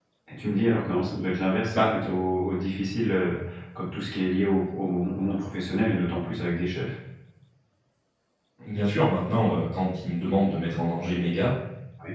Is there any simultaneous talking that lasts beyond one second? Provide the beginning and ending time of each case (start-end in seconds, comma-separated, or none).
none